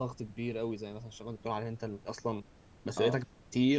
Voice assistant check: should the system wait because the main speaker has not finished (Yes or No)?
Yes